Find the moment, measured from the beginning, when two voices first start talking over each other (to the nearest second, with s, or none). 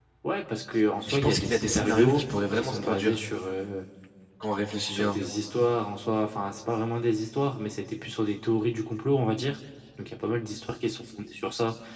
1 s